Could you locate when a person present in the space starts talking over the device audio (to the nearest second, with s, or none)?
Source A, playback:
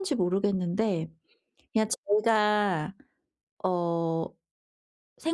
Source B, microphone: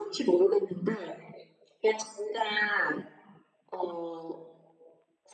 none